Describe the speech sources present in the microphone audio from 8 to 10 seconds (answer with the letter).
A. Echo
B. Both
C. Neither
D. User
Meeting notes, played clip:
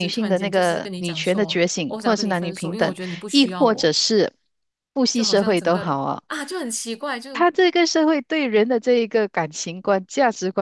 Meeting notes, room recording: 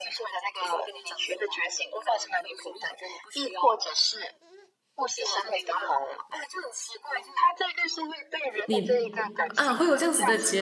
B